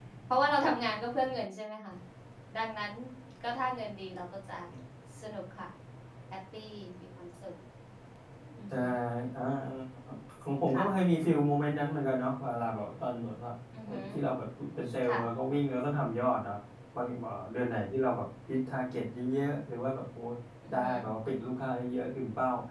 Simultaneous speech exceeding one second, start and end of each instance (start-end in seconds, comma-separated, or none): none